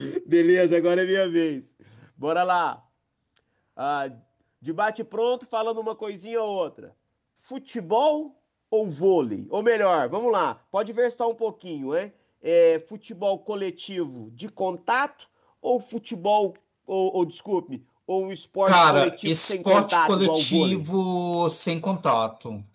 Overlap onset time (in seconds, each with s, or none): 18.6 s